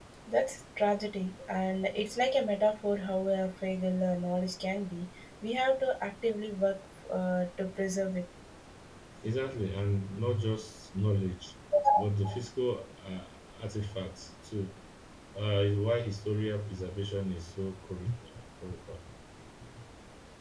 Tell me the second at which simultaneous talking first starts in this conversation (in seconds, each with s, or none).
none